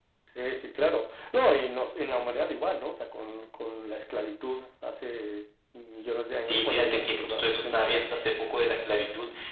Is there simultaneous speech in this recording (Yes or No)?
Yes